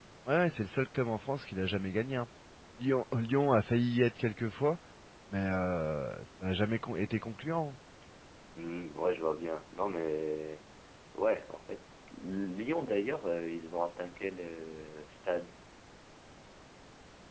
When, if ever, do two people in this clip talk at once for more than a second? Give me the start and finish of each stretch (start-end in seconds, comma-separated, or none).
none